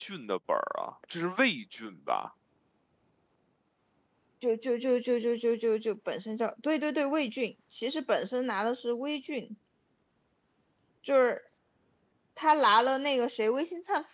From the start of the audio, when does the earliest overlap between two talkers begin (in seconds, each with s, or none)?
none